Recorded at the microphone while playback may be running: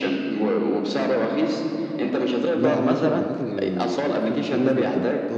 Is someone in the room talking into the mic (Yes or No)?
Yes